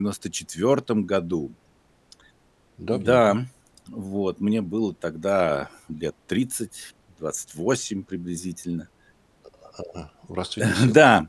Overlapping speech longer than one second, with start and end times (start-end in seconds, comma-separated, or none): none